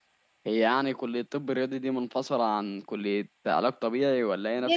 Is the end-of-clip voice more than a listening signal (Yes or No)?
Yes